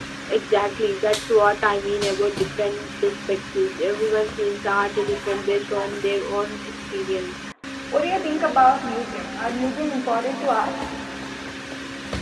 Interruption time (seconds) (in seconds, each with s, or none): none